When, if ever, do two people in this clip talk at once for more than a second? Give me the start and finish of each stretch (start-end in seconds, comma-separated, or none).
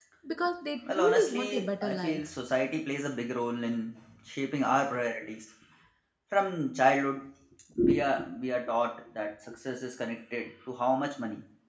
0.9-2.2